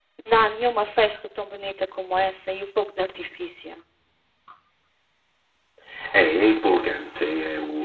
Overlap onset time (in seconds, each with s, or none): none